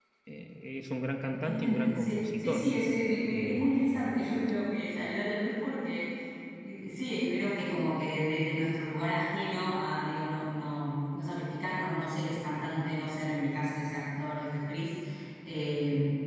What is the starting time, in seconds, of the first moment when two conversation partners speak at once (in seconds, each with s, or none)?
1.3 s